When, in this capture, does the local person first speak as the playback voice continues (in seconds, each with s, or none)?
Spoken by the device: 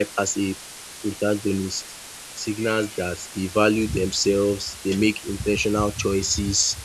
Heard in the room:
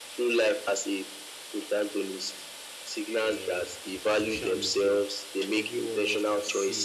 3.3 s